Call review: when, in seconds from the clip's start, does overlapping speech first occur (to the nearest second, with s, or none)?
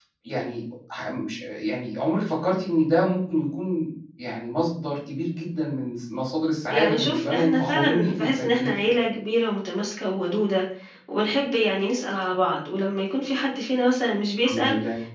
7 s